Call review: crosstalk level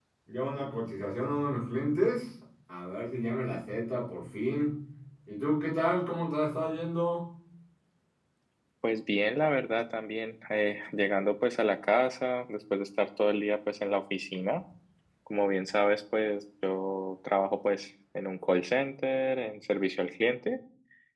none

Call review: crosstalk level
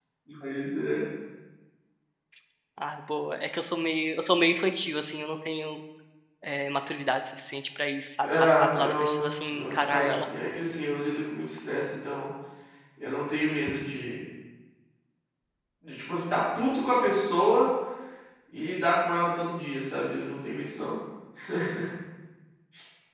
present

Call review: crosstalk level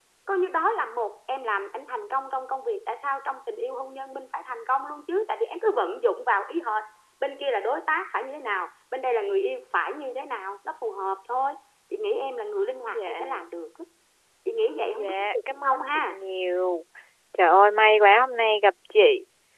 present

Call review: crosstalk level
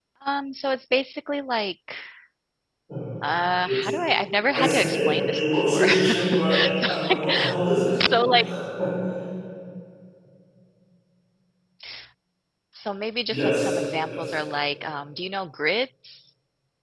present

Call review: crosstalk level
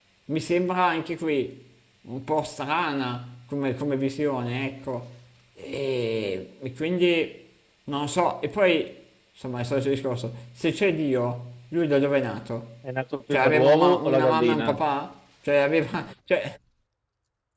present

